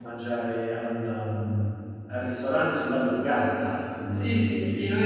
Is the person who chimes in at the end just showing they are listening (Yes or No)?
No